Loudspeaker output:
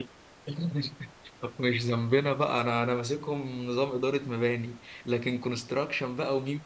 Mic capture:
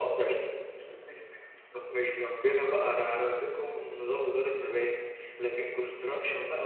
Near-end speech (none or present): none